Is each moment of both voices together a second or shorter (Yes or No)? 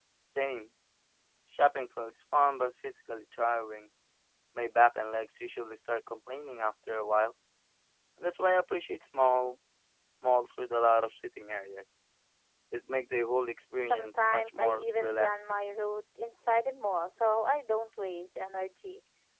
No